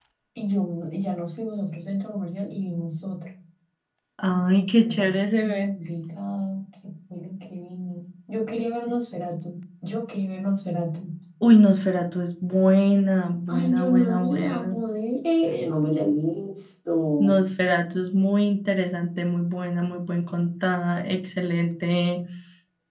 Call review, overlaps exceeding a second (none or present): present